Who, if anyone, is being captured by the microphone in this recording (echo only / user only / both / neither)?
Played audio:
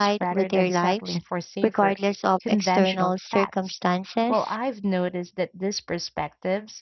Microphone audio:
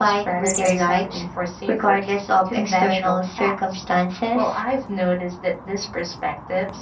echo only